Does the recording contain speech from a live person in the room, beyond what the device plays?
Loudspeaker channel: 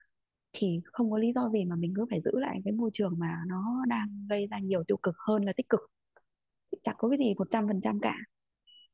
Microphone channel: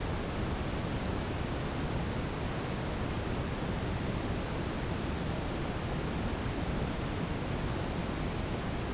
No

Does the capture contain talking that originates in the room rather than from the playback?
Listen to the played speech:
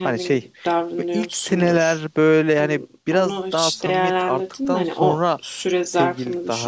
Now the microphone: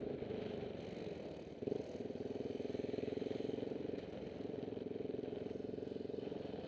No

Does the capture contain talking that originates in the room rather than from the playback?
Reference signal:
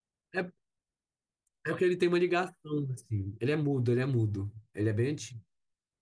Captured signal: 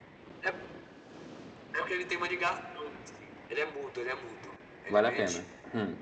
Yes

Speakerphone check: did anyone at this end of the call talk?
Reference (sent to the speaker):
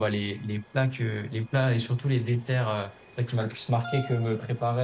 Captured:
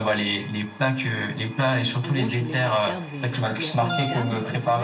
Yes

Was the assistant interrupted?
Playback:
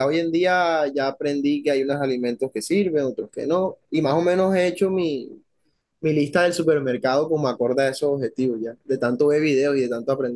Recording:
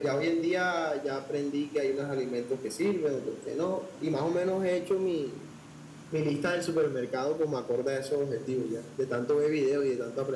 No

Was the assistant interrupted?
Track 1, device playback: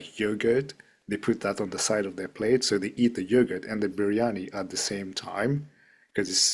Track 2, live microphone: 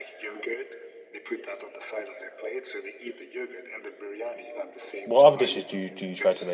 Yes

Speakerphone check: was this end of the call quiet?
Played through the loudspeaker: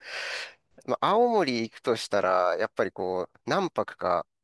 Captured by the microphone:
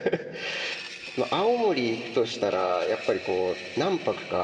Yes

